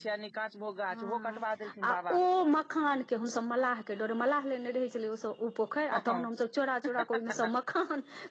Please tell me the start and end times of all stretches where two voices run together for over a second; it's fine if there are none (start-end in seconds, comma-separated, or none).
none